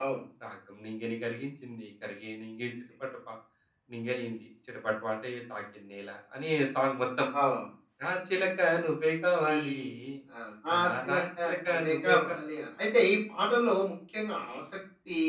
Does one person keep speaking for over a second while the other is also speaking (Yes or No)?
Yes